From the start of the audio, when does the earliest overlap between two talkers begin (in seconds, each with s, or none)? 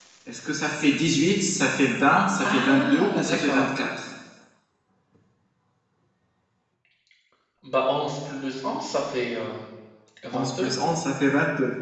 2.4 s